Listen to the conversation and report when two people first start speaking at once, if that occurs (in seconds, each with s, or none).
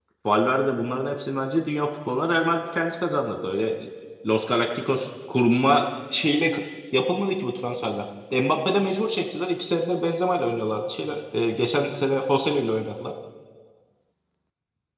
none